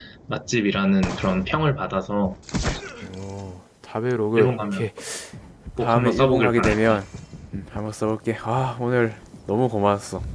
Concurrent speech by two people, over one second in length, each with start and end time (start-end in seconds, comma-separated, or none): 5.8-7.0